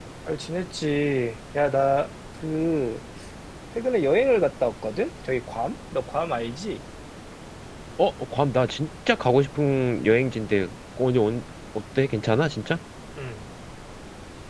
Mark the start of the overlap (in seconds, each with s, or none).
none